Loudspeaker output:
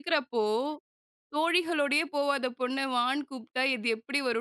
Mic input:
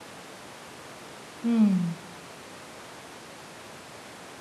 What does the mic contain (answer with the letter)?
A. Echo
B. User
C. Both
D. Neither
B